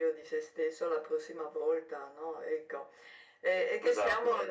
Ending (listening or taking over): listening